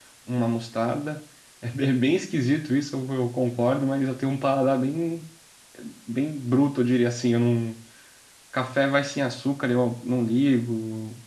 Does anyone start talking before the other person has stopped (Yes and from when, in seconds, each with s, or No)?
No